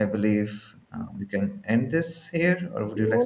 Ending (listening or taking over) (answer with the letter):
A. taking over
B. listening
A